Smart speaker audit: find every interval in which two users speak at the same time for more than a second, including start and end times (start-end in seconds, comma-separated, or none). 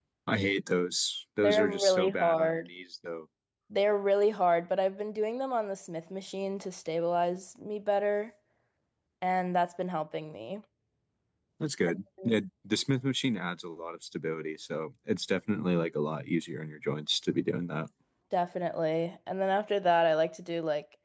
1.4-2.7